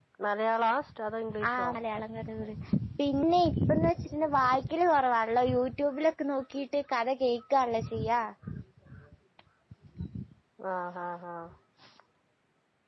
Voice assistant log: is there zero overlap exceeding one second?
Yes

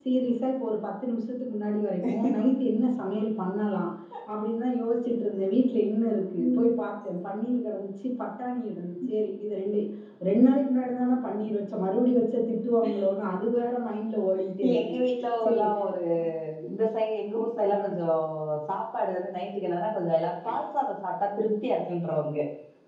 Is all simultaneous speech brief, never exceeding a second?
Yes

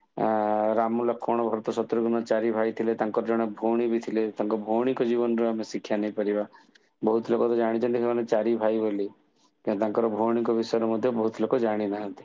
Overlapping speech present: No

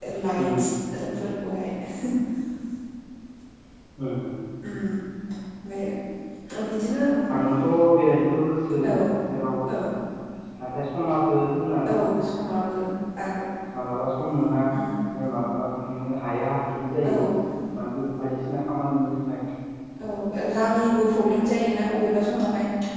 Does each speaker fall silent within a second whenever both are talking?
Yes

